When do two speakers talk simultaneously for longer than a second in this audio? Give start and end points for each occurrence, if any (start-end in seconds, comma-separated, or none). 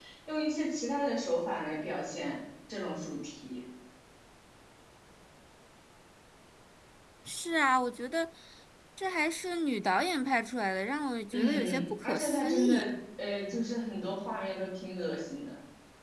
11.3-12.9